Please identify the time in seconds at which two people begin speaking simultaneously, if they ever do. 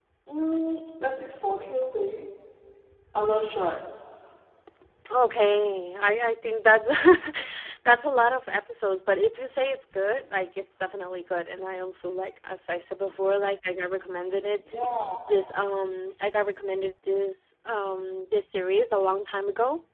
none

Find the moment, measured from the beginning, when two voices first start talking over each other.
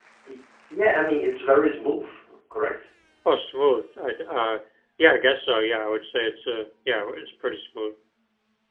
none

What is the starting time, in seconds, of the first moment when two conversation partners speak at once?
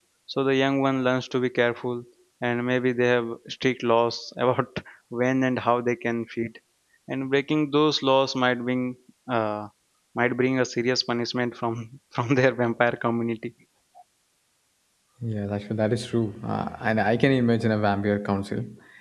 none

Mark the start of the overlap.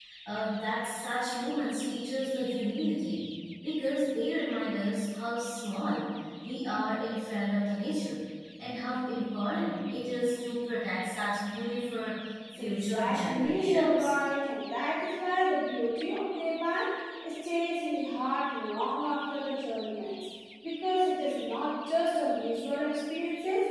12.6 s

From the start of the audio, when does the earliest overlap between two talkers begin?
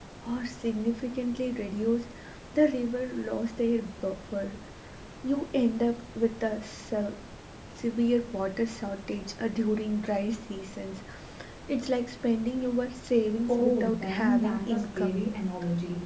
13.5 s

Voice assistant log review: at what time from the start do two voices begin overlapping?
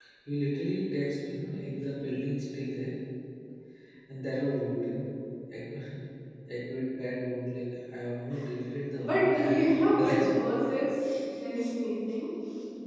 9.0 s

